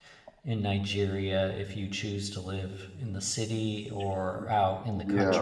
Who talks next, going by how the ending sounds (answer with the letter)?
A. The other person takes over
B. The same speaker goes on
A